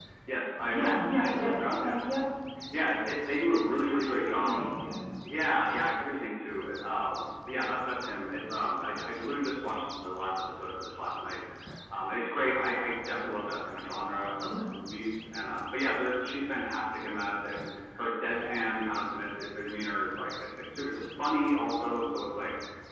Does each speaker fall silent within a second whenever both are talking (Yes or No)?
No